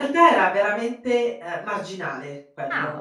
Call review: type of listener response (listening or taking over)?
listening